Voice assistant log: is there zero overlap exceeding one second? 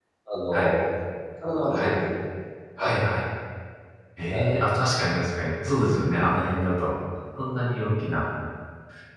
Yes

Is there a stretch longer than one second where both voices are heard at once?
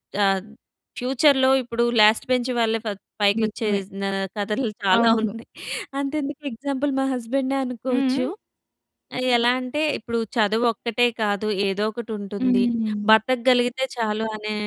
No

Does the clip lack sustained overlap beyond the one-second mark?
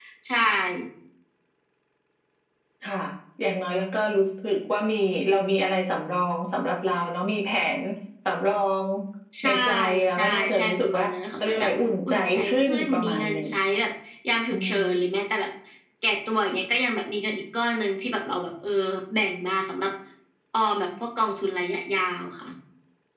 No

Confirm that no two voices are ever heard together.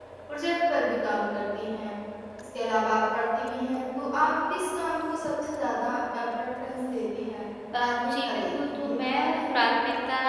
No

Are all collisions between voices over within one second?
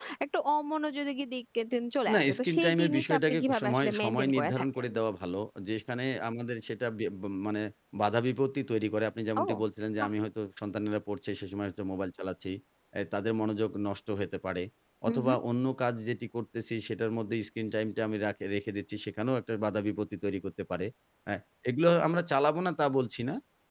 No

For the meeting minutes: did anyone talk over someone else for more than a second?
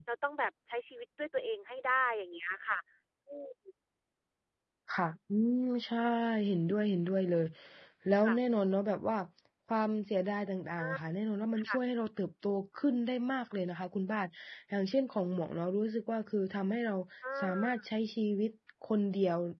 No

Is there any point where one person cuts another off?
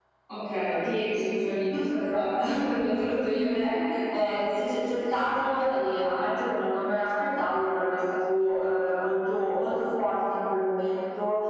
Yes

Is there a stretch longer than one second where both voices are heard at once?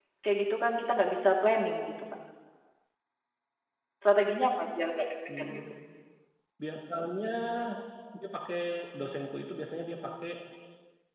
No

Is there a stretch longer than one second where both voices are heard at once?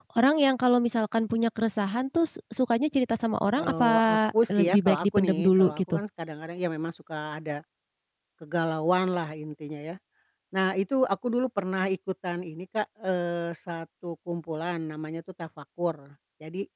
Yes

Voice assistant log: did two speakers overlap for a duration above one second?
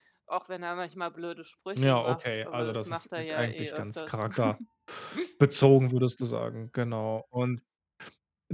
Yes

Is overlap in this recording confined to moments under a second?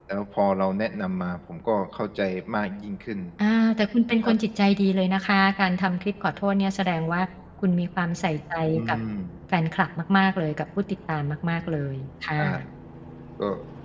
Yes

